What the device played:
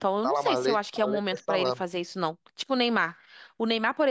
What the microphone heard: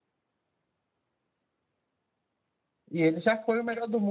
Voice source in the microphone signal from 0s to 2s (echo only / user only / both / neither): neither